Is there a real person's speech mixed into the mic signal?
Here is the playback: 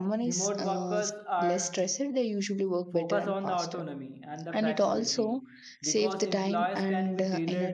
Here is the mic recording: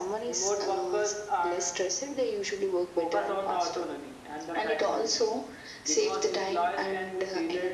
No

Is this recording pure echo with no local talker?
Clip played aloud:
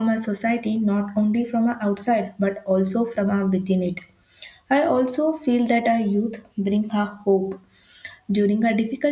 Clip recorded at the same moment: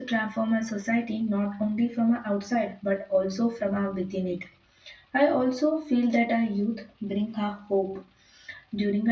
Yes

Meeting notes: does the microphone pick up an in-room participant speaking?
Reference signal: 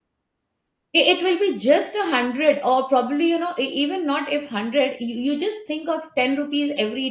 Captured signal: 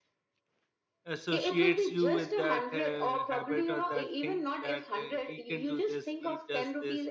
Yes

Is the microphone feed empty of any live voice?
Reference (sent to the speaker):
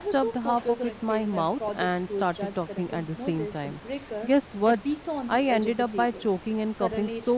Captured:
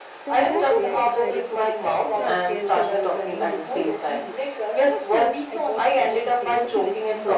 No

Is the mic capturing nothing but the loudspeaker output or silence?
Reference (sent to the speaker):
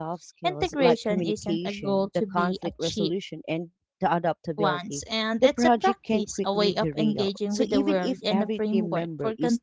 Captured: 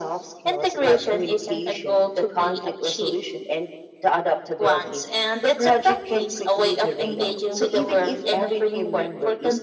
Yes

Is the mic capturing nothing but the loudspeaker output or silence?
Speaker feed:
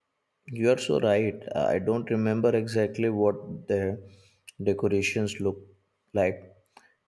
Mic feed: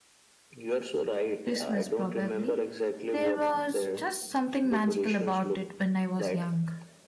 No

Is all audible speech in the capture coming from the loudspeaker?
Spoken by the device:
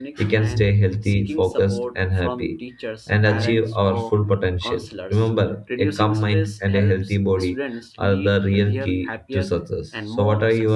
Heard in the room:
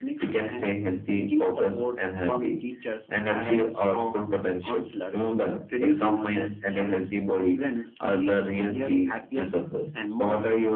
Yes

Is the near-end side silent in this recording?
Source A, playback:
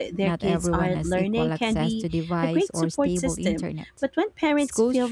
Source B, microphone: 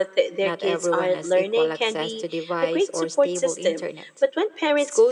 Yes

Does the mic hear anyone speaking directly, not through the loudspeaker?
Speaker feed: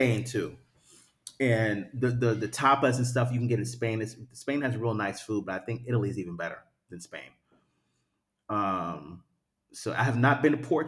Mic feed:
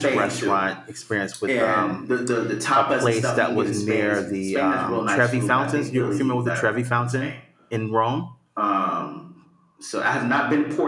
Yes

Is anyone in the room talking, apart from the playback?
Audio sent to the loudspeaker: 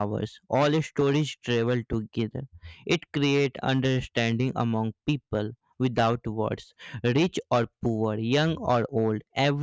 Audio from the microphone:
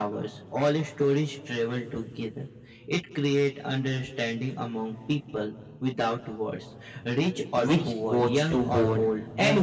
Yes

